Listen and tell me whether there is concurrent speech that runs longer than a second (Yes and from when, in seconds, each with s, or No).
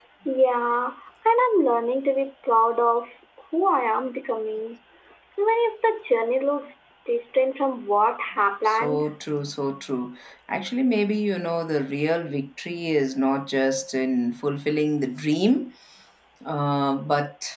No